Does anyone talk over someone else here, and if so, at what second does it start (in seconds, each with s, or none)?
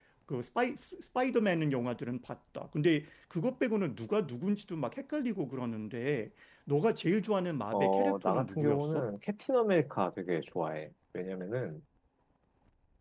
7.7 s